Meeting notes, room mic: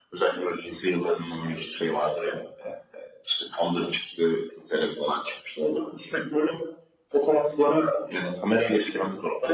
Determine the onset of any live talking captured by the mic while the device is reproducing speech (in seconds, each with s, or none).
none